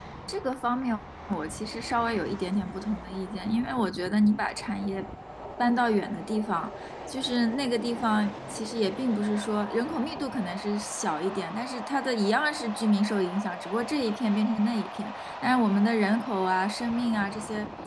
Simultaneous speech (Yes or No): No